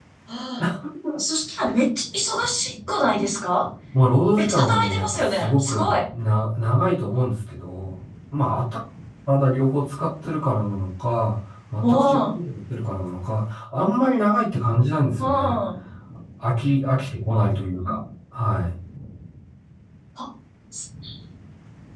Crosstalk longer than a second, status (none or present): present